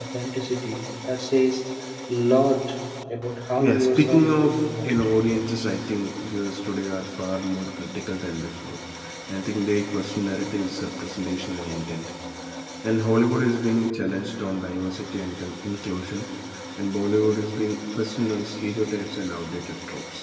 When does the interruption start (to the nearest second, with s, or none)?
4 s